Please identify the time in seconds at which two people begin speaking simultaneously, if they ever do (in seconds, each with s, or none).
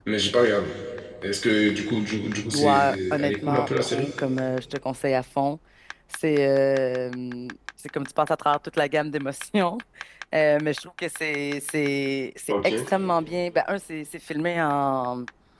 2.5 s